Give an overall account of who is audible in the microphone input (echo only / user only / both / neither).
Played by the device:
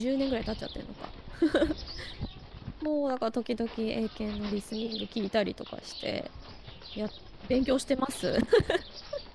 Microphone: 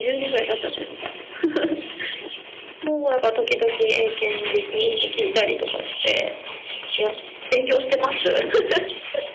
echo only